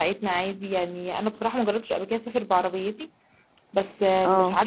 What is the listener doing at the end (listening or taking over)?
listening